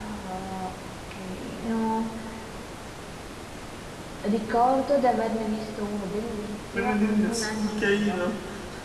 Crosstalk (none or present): present